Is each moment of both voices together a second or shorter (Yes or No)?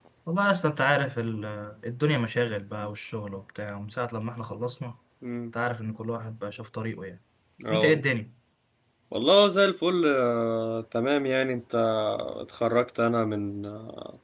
Yes